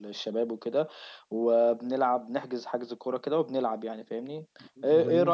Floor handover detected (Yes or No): No